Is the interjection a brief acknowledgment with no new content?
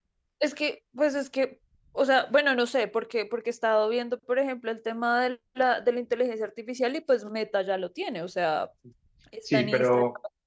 No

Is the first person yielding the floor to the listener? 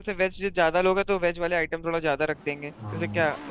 Yes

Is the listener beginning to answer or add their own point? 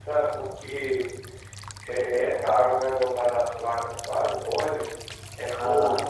No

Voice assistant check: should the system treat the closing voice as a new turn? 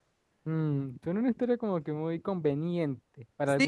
Yes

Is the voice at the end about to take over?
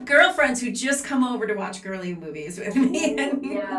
Yes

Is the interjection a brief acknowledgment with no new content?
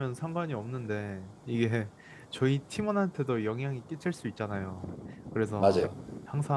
Yes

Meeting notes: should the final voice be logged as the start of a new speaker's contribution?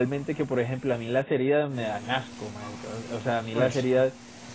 No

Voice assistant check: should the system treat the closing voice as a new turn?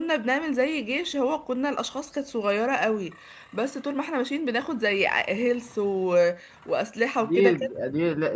Yes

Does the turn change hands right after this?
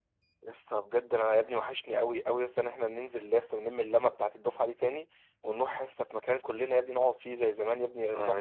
Yes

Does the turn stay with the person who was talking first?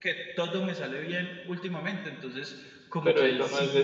No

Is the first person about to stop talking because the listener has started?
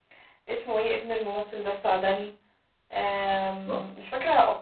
No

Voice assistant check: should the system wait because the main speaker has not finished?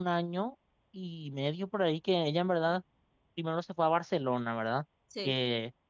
Yes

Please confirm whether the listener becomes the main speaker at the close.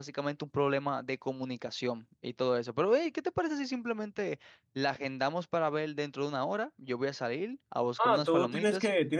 Yes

